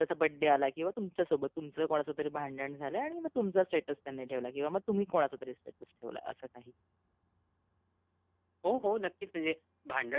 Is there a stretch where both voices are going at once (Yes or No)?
No